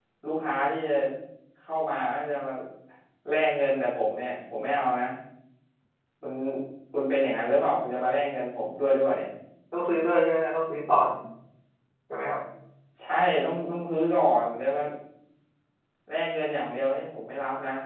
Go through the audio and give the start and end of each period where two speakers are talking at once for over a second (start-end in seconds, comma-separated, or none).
none